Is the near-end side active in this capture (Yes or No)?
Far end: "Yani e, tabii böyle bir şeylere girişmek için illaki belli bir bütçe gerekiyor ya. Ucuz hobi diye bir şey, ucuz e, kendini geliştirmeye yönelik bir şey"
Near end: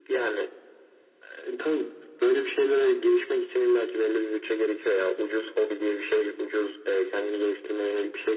No